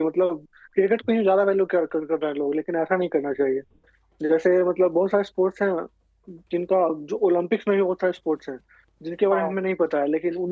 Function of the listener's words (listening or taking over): listening